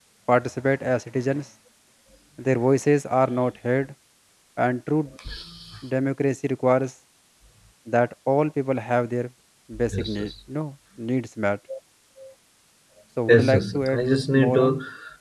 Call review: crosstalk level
present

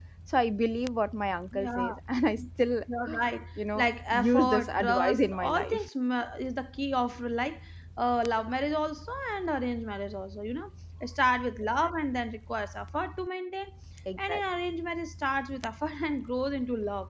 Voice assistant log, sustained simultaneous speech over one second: present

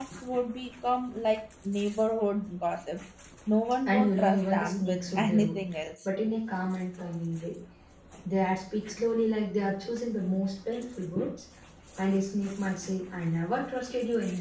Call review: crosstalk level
present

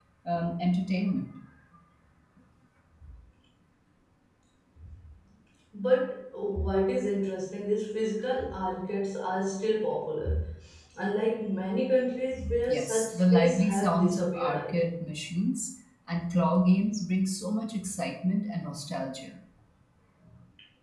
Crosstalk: present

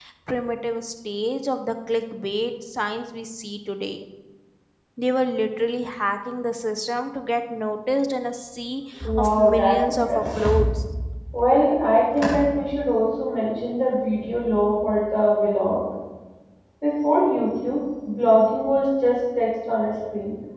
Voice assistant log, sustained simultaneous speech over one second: present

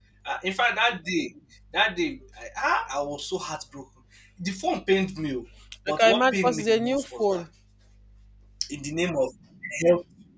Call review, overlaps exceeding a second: present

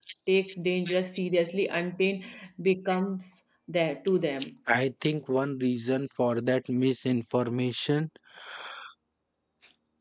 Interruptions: none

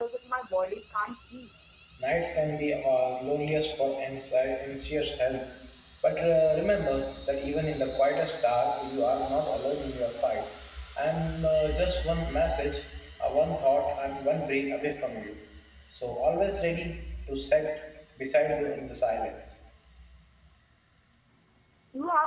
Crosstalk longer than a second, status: none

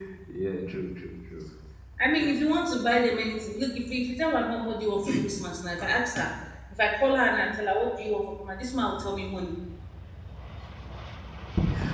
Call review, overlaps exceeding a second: none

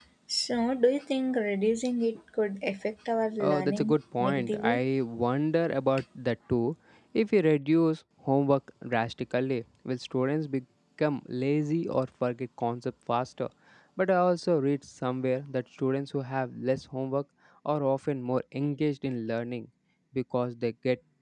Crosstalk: present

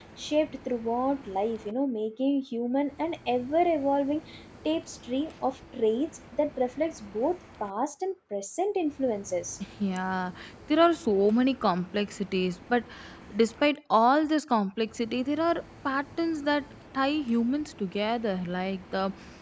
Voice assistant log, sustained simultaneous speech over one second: none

